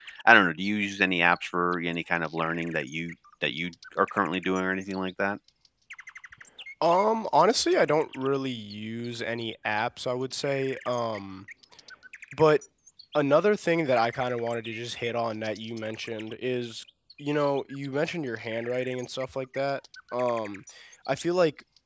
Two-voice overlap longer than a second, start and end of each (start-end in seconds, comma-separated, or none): none